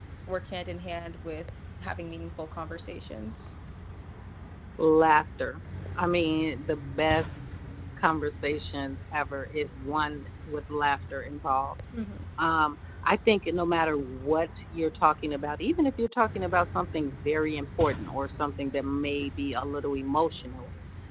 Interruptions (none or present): none